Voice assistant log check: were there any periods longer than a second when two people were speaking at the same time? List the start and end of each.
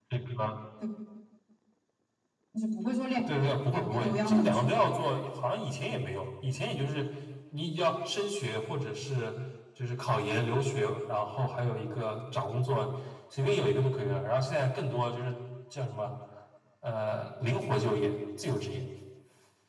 3.3-5.0

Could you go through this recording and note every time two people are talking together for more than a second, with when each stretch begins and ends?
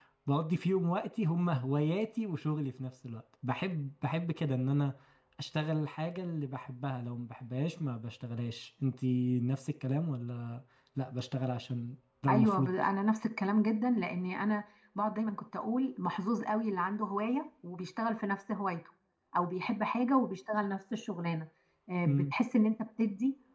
none

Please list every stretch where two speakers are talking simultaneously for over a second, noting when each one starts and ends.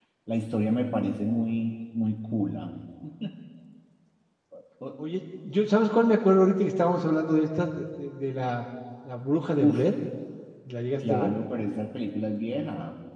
none

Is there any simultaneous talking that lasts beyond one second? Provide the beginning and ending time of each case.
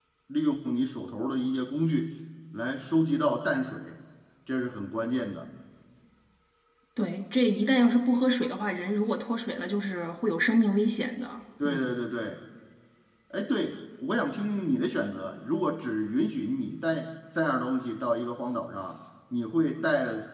none

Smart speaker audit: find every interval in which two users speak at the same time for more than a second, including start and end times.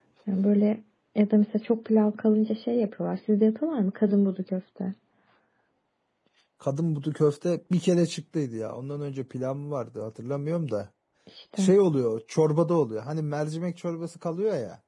none

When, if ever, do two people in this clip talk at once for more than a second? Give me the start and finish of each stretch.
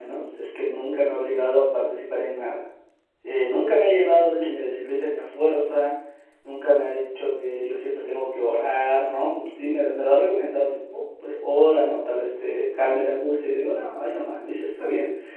none

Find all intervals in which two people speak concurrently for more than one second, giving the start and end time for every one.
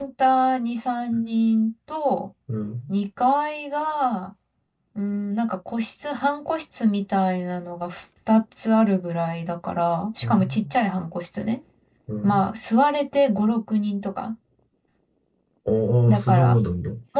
none

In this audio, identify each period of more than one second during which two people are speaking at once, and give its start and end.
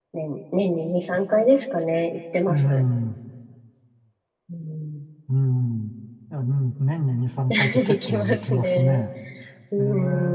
7.5-9.0

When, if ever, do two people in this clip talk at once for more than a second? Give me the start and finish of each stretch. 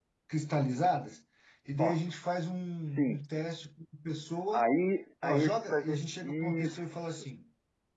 5.2-7.2

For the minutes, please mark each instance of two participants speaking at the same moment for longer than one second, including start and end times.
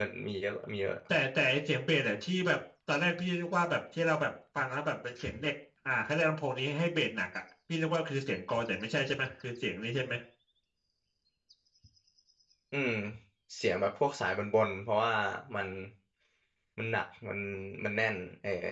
none

